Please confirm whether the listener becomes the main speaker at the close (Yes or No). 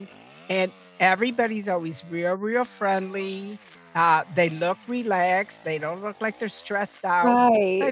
No